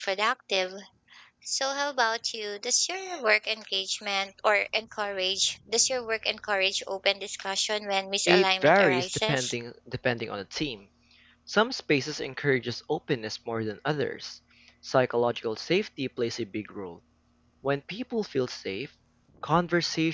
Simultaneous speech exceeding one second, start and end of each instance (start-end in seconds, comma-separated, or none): 8.3-9.5